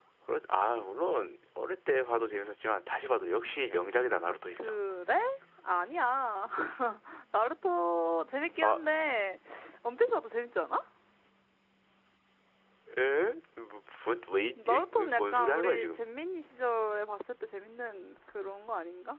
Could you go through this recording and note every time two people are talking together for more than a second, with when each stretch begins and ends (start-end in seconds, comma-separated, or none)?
14.6-16.0